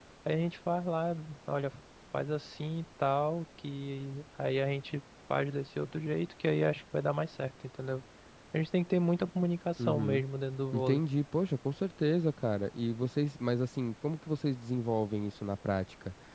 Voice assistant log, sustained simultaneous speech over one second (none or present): none